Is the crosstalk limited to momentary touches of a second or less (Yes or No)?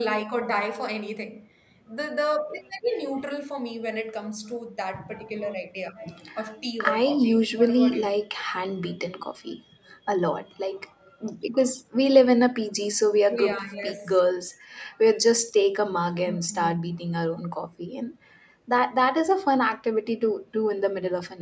No